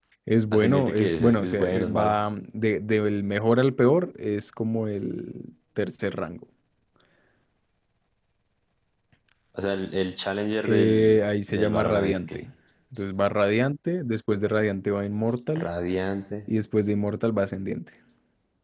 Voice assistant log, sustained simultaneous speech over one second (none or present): present